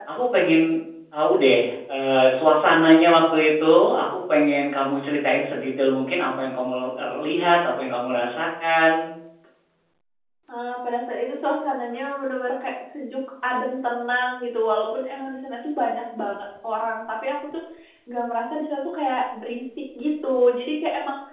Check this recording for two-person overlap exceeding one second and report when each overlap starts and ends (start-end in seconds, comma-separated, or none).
none